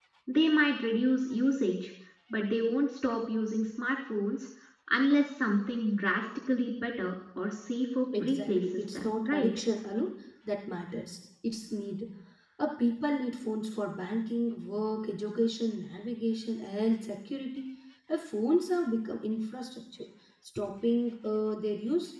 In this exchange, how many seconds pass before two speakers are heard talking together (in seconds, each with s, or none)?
8.1 s